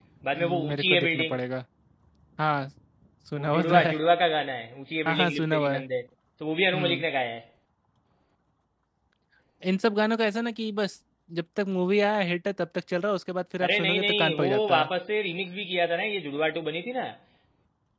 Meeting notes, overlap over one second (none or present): present